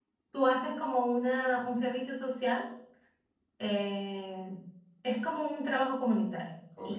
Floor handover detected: Yes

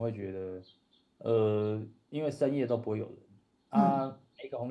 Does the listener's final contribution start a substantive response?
No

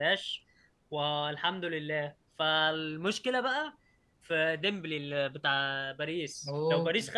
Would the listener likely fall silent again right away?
Yes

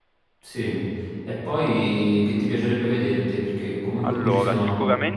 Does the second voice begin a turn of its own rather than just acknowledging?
Yes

